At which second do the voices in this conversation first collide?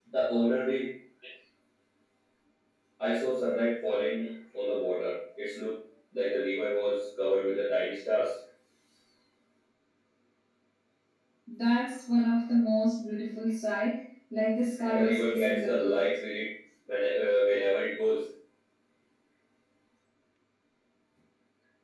14.8 s

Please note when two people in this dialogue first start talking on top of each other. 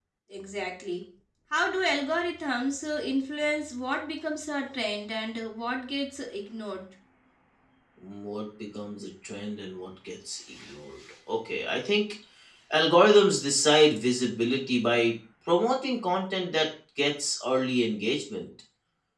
none

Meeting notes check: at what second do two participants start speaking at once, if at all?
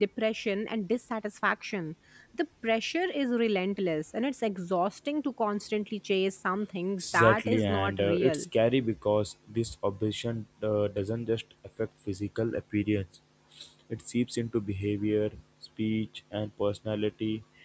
7.0 s

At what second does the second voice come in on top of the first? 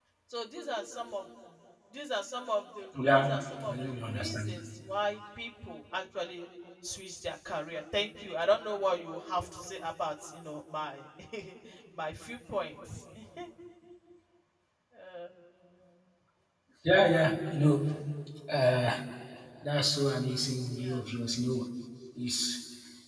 2.9 s

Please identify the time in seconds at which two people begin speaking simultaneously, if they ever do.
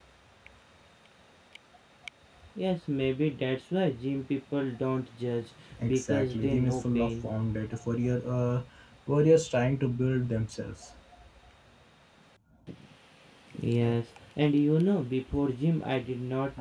5.8 s

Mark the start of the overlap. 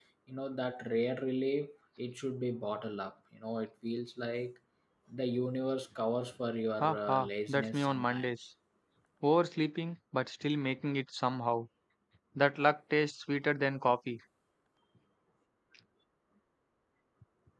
6.8 s

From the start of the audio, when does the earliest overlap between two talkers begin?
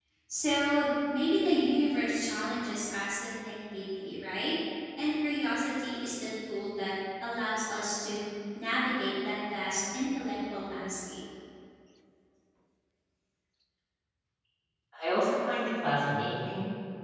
none

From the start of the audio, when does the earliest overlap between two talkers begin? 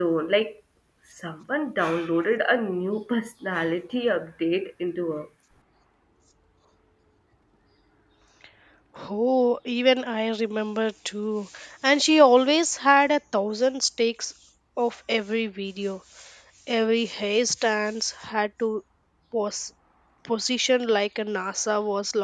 none

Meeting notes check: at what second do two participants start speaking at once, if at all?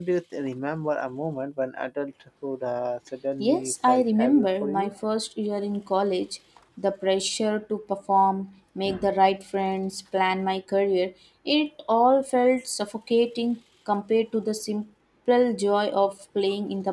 3.4 s

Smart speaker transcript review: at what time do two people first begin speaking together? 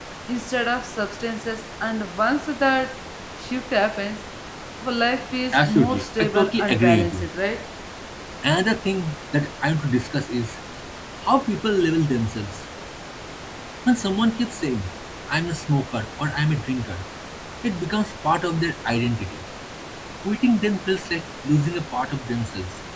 5.5 s

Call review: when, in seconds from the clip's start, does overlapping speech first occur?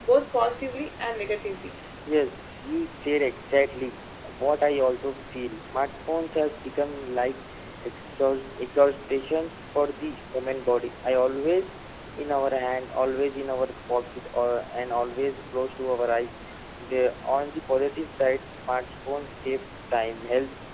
none

